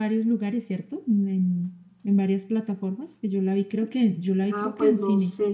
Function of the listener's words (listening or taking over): taking over